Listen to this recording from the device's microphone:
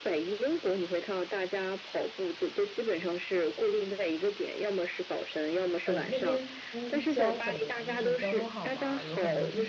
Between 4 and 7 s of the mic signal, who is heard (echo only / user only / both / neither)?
both